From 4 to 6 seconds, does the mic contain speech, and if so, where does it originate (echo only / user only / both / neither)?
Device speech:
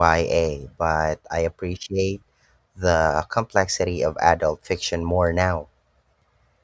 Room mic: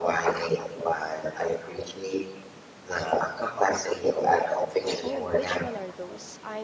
both